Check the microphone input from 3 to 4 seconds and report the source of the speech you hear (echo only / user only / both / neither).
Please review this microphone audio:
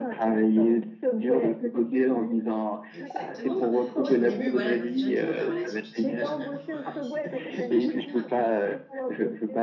both